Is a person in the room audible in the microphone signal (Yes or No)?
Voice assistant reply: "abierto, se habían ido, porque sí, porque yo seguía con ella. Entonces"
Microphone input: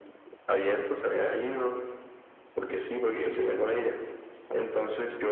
No